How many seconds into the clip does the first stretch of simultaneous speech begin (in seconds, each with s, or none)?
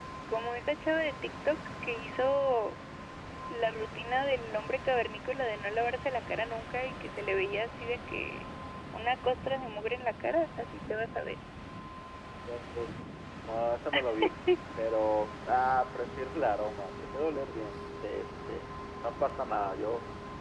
none